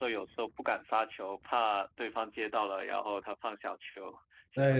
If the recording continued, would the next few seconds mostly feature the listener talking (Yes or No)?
Yes